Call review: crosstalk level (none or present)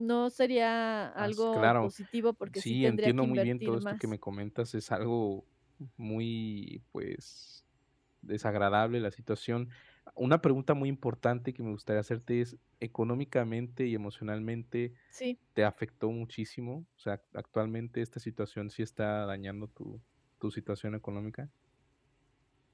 present